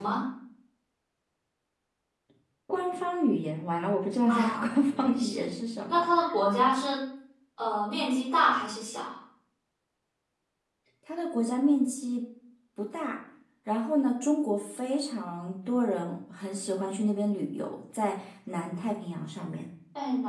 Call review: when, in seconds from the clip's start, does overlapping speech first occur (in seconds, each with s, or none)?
4.3 s